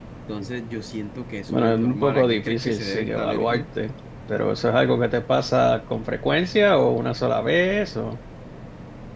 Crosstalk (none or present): present